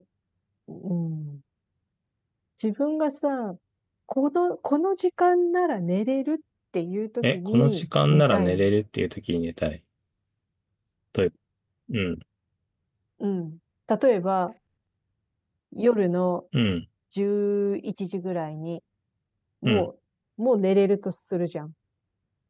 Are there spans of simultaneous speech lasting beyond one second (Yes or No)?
Yes